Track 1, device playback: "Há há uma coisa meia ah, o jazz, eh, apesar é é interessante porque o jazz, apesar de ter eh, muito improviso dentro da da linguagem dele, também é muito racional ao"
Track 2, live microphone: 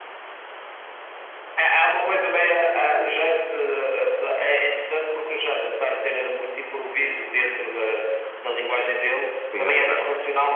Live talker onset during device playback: 9.5 s

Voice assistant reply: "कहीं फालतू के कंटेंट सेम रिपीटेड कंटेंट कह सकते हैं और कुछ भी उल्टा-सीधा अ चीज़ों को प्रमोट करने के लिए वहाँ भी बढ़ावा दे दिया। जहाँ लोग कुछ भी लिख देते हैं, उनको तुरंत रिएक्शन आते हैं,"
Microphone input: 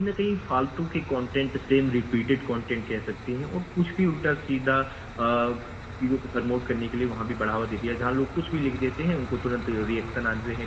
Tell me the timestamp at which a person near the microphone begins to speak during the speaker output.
none

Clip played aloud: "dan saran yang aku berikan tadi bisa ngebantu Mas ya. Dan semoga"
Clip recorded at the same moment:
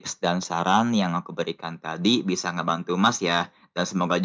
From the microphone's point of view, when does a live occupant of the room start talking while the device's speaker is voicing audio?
none

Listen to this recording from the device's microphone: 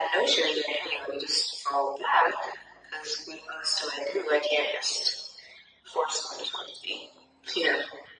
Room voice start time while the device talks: none

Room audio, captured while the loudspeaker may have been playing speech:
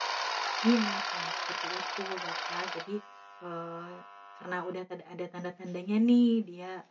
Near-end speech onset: 0.6 s

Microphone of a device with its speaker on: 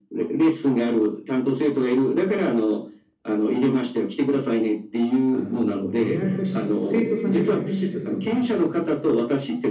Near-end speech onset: 5.3 s

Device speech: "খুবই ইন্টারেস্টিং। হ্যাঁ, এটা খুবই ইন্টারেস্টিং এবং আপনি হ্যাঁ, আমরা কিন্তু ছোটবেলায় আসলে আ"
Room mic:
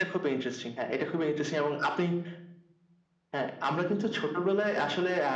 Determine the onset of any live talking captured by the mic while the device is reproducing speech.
none

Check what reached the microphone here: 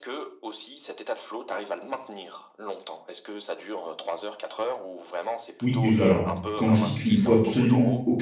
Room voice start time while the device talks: 5.6 s

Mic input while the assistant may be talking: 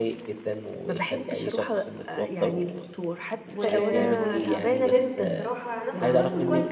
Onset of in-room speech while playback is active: 3.5 s

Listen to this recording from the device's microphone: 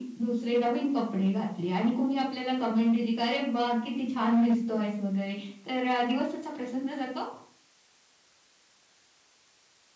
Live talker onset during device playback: none

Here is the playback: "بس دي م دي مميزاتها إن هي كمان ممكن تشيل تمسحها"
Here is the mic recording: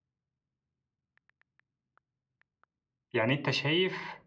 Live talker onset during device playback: 3.1 s

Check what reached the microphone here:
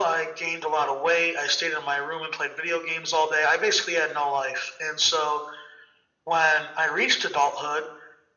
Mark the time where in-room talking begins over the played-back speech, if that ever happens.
none

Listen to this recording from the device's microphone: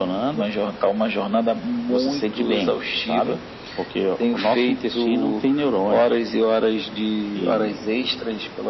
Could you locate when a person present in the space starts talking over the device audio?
none

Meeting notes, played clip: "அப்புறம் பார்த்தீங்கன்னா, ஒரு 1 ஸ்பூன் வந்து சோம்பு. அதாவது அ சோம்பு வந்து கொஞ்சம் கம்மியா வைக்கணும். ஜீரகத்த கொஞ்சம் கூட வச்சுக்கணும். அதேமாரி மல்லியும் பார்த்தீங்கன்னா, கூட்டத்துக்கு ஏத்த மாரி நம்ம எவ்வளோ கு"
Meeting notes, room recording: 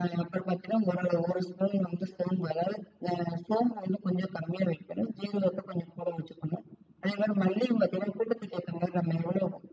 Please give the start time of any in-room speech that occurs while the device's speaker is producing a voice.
none

